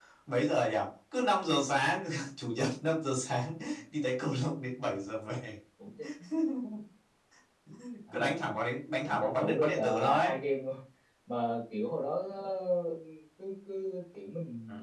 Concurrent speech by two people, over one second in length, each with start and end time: 9.0-10.3

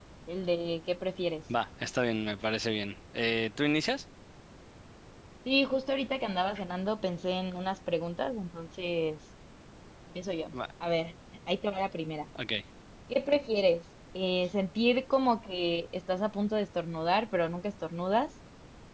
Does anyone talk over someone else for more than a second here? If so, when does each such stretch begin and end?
none

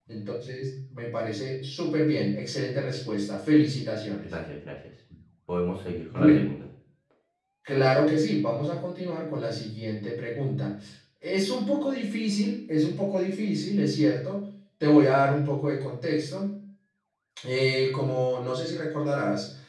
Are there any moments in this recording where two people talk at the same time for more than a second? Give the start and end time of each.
none

